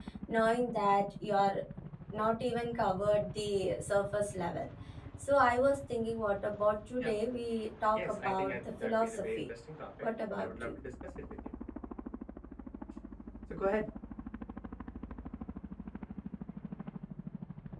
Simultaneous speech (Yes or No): Yes